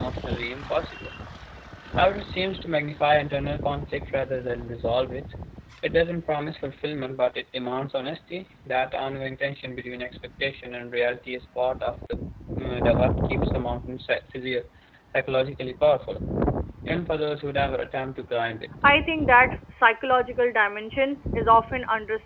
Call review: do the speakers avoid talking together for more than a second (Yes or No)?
Yes